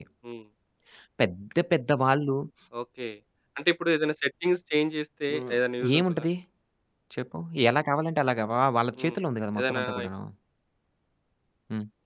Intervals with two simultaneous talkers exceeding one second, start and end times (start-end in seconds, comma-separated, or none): none